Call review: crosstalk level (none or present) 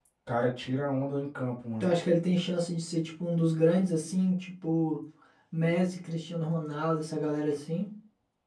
none